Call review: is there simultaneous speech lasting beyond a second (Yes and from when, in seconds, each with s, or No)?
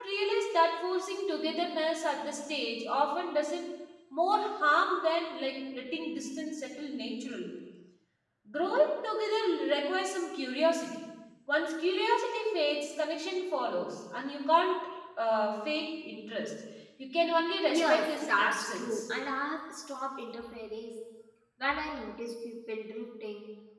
Yes, from 17.7 s